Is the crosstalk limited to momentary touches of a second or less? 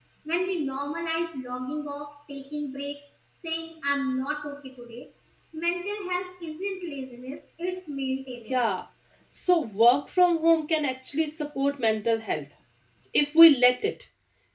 Yes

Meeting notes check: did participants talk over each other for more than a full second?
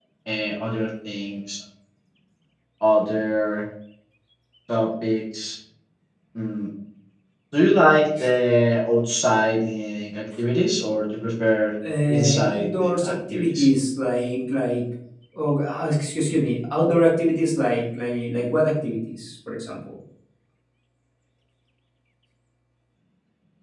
Yes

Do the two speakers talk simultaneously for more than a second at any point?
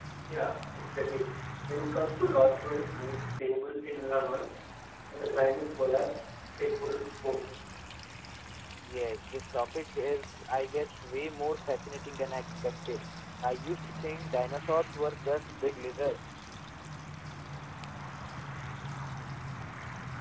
No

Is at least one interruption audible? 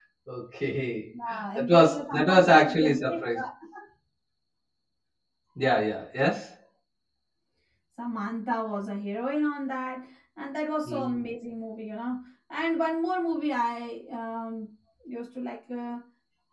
Yes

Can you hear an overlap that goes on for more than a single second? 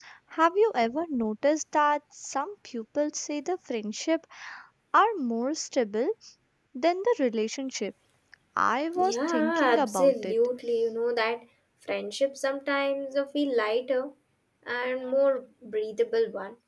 Yes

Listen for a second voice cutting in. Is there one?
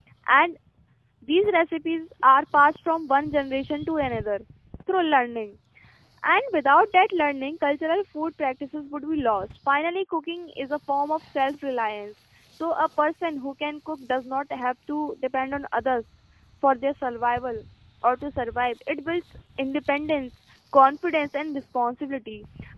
No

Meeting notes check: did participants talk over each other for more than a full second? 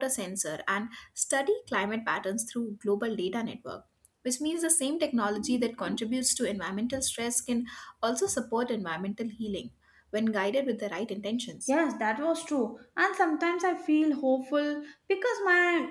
No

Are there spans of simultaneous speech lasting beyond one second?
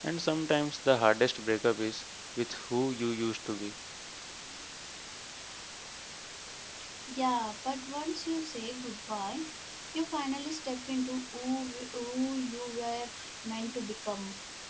No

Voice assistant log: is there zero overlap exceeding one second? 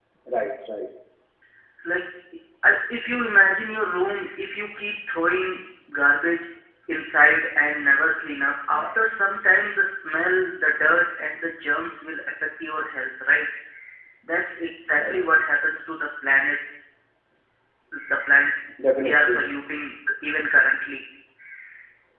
Yes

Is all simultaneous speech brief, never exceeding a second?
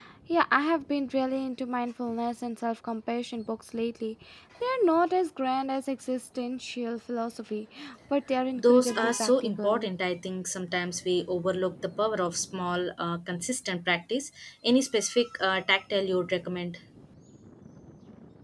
No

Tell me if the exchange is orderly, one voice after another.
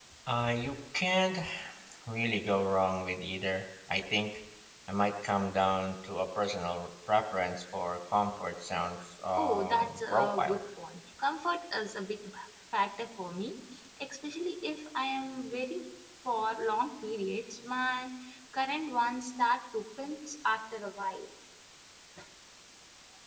No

